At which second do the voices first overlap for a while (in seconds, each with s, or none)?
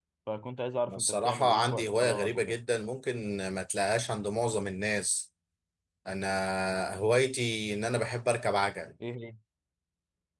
0.9 s